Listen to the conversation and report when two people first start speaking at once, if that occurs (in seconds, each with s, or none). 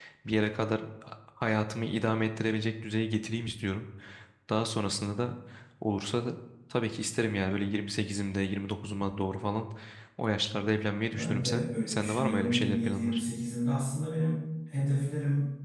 11.1 s